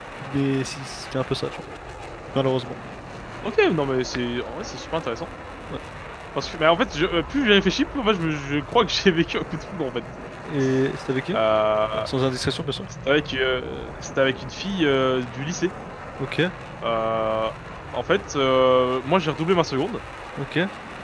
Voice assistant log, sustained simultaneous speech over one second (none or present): none